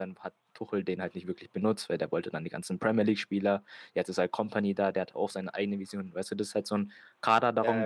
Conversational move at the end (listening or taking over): listening